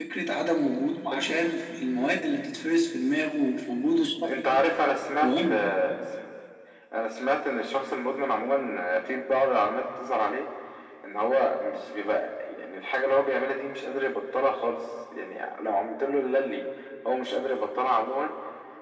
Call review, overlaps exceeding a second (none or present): none